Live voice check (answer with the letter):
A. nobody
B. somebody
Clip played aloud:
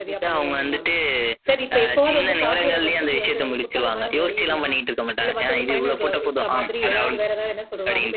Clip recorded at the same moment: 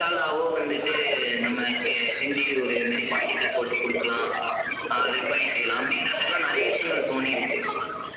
B